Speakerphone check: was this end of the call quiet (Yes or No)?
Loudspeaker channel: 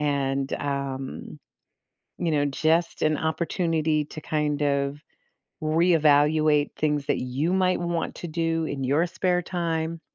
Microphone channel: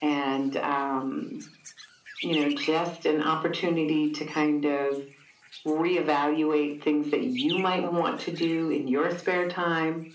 Yes